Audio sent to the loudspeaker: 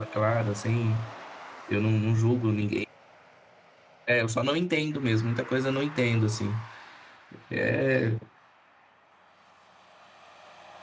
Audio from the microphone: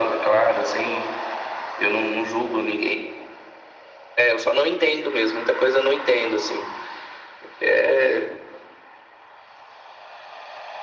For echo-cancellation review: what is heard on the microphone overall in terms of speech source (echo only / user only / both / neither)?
echo only